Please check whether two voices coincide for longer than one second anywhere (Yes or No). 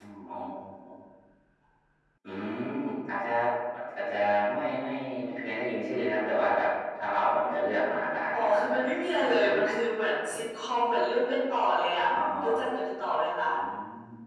No